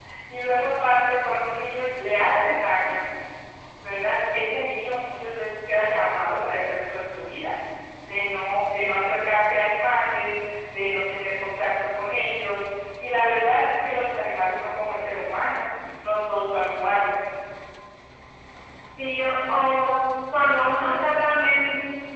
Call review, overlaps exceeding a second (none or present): none